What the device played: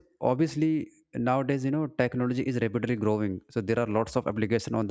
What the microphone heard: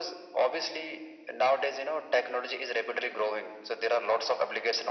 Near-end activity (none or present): none